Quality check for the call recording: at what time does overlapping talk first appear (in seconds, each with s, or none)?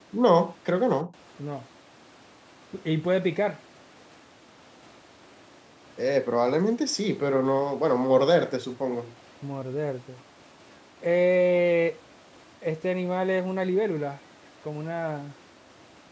none